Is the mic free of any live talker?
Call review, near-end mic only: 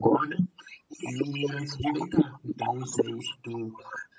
Yes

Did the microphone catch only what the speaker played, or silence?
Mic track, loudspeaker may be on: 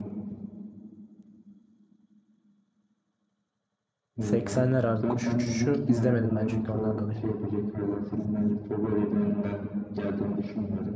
No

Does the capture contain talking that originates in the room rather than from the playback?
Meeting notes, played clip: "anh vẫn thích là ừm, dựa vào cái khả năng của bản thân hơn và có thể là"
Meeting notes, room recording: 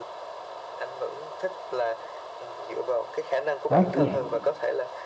Yes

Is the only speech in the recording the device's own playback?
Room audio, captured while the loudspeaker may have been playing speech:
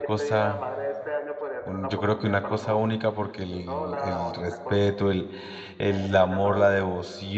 No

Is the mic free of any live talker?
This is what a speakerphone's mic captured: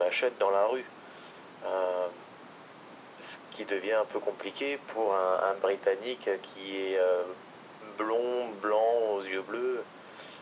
Yes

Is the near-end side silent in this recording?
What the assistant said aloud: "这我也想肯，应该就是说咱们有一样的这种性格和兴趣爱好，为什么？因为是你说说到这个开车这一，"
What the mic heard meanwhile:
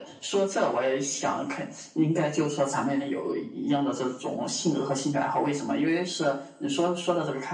Yes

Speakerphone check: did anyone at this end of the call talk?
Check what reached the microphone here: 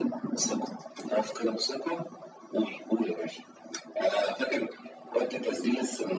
No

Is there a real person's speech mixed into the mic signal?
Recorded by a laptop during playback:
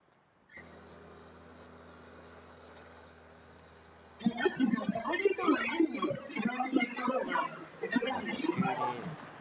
Yes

